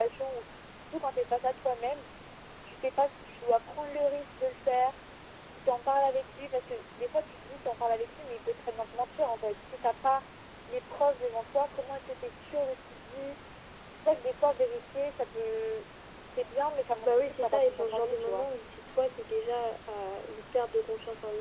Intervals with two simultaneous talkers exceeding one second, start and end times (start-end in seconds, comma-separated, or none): 17.0-18.5